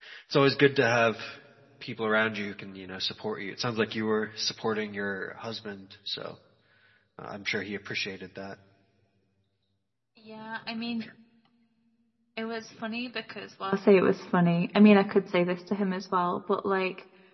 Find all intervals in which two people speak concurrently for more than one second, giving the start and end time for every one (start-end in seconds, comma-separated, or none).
none